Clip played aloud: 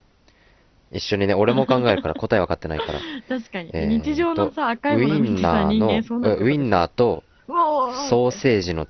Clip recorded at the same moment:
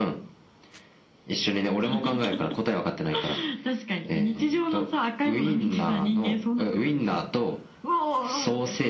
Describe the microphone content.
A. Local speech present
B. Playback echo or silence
B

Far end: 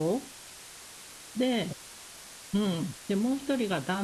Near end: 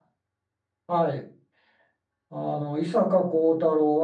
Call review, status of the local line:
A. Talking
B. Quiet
A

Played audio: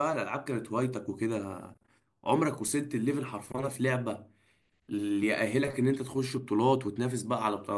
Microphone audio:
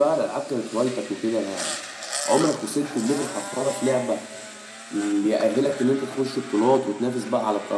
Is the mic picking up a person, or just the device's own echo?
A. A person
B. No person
B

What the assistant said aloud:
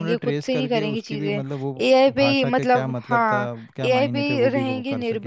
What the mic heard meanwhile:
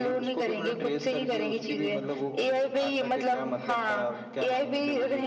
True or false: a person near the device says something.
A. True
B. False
B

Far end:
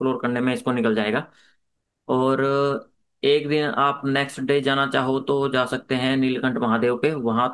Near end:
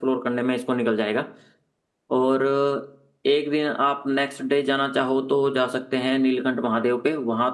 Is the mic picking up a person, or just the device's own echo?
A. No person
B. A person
A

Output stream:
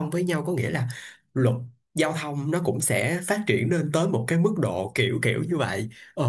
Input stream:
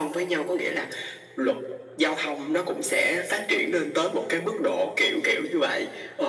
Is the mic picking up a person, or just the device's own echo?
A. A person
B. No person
B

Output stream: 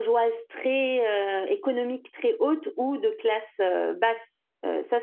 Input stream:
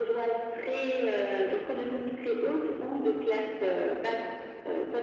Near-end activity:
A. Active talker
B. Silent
B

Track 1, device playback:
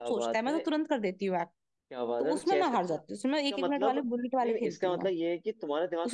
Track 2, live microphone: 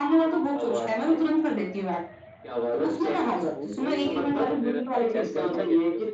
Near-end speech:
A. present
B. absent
A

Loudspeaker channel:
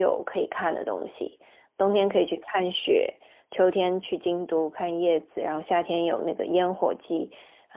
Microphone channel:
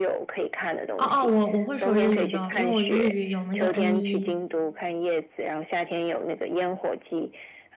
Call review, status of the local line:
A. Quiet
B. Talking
B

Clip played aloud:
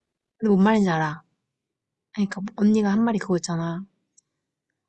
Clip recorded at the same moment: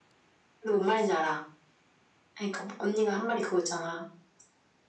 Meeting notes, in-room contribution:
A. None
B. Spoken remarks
A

